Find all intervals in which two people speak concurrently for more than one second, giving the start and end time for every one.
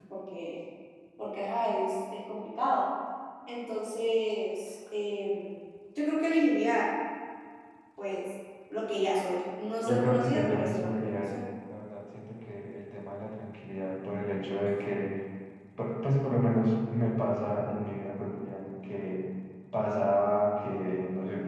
9.9-11.3

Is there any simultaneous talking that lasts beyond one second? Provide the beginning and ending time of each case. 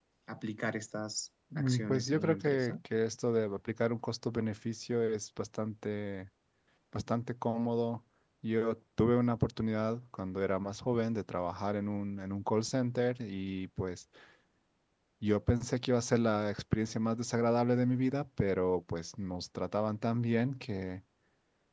1.6-2.8

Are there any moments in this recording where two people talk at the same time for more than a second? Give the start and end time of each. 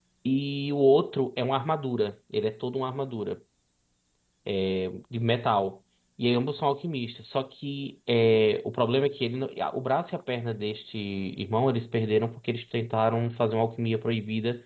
none

